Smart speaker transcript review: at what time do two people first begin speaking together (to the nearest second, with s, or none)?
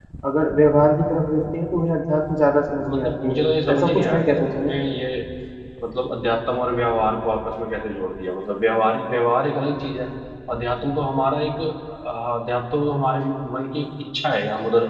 3 s